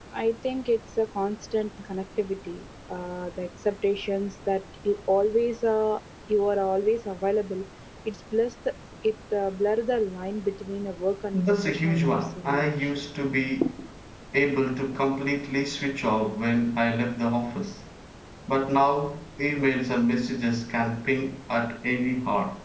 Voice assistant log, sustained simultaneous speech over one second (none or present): present